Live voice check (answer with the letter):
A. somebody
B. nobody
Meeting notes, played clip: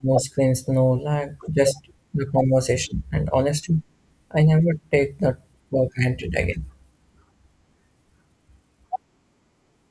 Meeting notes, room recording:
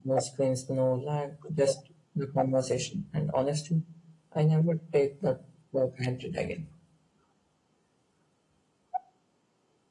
B